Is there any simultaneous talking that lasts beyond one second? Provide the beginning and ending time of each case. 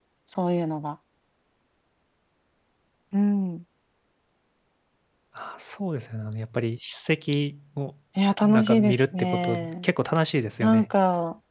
8.4-9.8

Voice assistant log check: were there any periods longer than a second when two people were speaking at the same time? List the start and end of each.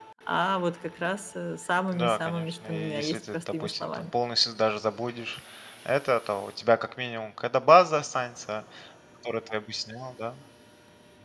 1.9-4.0

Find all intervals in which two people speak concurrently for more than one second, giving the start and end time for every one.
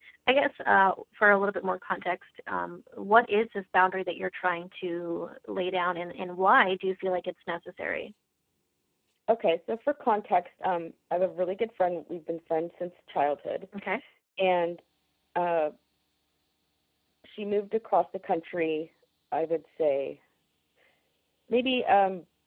none

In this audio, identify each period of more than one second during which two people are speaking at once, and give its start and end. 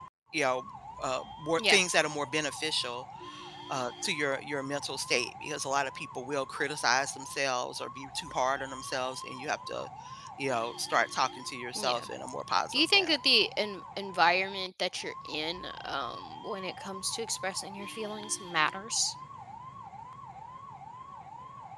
none

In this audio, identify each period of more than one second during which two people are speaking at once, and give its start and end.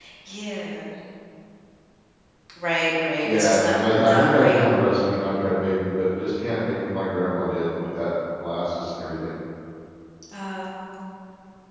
3.2-4.6

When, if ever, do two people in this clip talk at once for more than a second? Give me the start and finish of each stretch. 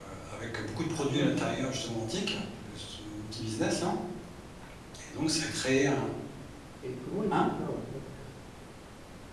none

